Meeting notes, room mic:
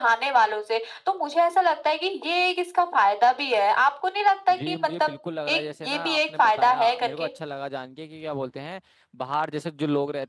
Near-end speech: present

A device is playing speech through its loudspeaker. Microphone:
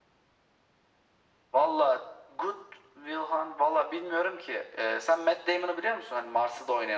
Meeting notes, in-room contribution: none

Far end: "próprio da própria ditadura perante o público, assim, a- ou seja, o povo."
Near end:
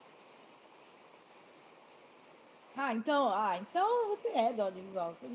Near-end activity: present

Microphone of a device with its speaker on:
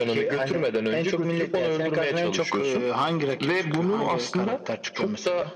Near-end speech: none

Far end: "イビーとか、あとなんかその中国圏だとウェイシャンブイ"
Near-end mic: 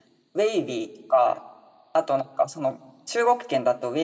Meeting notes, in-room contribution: none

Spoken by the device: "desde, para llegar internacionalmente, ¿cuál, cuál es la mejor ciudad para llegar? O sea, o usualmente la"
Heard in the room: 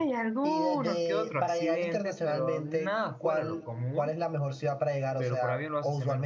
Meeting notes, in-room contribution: present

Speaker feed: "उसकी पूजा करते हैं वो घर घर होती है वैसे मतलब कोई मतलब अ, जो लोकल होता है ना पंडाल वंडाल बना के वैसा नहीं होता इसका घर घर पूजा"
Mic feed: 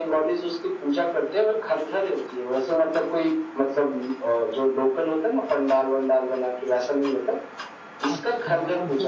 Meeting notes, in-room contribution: present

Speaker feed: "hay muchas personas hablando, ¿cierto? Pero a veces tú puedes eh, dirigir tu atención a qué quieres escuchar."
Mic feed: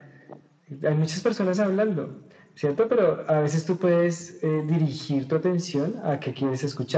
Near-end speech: none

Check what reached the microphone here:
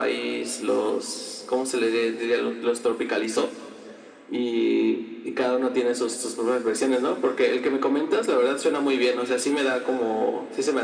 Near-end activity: none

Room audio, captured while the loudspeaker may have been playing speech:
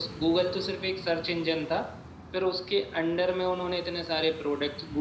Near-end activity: none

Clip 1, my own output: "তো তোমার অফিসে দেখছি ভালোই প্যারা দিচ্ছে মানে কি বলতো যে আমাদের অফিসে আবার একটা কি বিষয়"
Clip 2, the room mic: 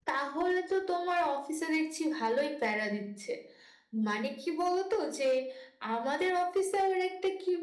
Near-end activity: none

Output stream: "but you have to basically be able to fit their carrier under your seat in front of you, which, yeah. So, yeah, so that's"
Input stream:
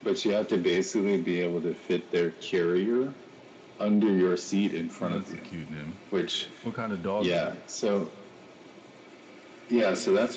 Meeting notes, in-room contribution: present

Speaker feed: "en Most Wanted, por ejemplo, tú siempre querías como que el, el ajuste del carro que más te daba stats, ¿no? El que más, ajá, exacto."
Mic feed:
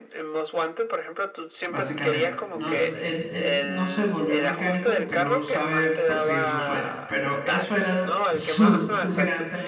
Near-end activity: present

